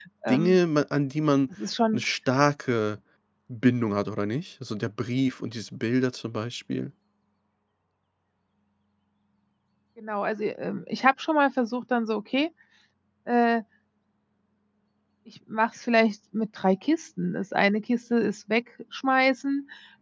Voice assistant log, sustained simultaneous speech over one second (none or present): none